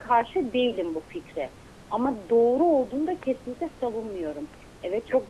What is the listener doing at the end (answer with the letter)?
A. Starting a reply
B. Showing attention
B